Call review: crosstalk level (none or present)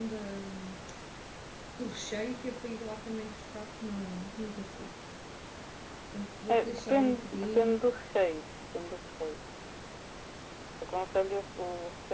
present